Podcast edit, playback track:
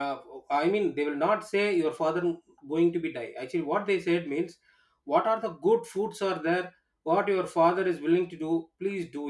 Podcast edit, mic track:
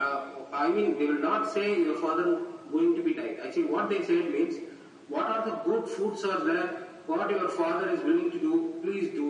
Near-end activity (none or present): none